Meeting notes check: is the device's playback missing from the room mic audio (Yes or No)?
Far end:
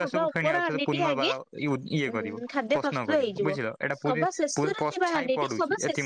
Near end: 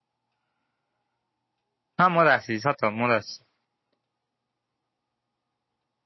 Yes